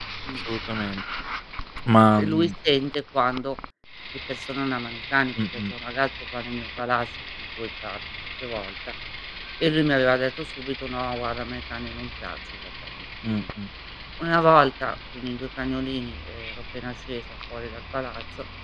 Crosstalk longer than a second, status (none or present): none